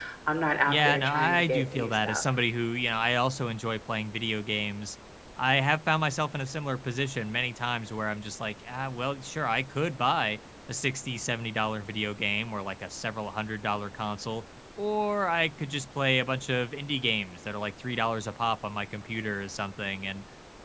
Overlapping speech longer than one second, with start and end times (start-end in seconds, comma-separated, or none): 0.7-2.2